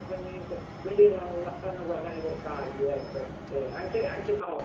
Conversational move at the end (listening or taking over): listening